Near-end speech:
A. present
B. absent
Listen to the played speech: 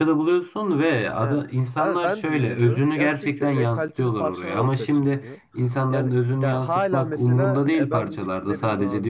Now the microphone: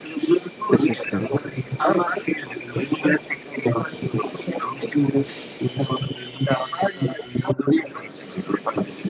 A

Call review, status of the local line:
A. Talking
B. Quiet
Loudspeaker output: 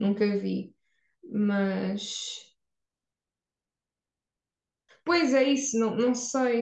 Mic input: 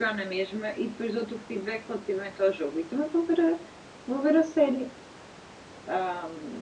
A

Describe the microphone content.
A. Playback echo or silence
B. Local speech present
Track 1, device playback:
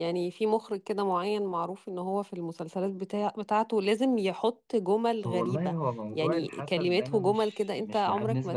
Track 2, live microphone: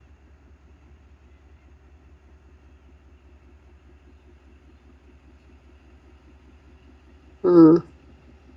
B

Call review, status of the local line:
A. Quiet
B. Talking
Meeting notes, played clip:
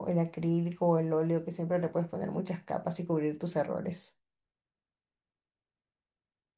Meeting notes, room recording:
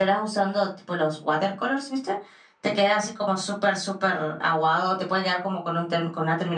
B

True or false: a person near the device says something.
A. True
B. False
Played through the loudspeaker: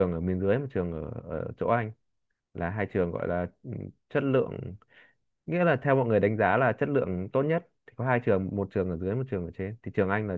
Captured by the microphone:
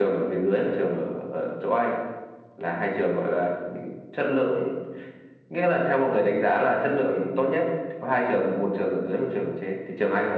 B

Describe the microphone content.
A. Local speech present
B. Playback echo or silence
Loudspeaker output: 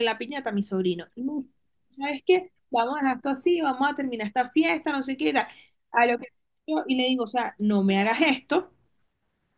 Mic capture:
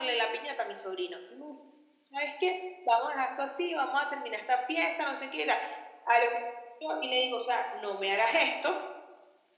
B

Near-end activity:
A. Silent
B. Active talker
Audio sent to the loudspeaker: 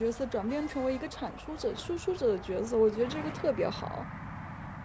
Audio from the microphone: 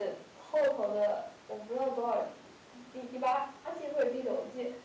B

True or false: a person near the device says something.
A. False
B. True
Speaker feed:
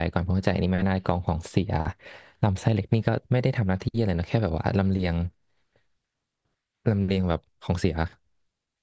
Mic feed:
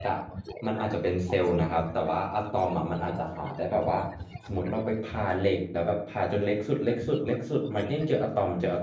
B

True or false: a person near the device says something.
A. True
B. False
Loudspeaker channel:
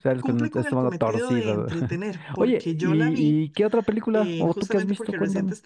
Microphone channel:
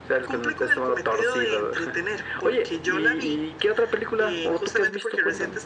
B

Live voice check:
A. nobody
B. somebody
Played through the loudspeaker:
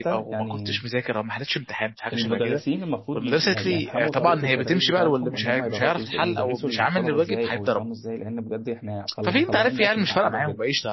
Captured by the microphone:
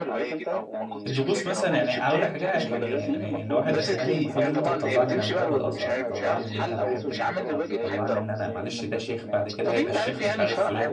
B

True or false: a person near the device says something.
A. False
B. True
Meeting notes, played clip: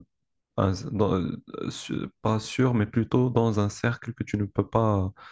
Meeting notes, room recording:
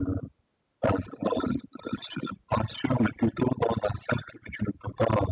A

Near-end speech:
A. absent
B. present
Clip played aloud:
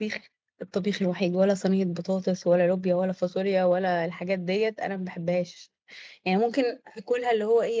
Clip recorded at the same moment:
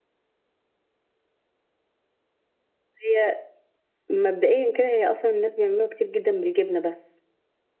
B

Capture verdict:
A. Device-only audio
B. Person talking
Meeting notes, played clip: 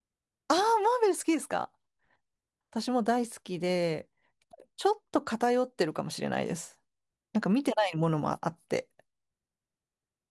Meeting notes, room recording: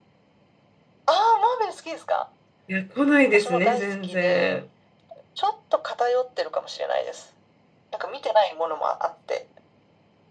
B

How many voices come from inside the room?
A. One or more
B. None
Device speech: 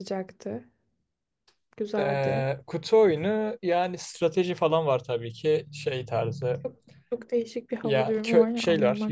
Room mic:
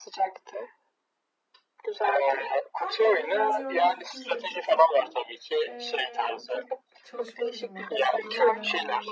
A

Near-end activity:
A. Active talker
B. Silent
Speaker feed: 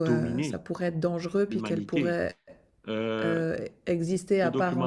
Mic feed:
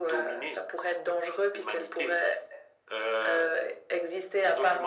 B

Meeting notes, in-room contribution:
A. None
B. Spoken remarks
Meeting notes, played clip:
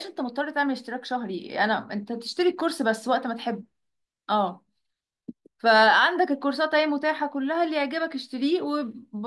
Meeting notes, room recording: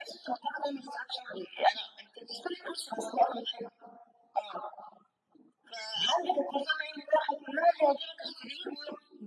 A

